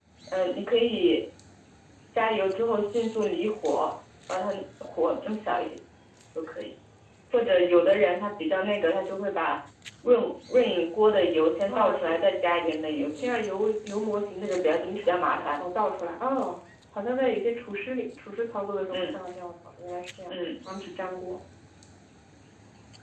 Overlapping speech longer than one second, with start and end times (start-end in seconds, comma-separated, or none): 14.4-15.6